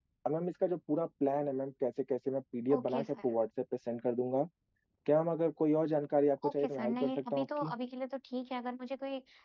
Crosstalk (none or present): present